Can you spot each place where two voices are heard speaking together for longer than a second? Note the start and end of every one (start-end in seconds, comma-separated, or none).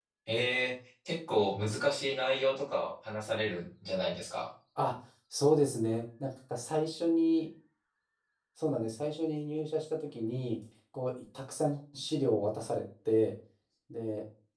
none